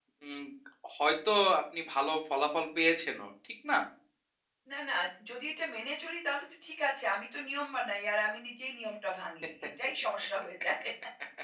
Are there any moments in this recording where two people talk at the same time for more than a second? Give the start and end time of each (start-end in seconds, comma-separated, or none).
none